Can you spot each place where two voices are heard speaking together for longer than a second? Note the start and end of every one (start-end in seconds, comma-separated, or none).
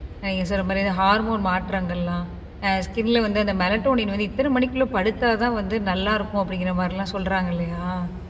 none